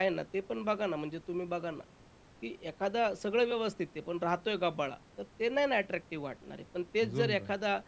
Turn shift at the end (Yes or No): No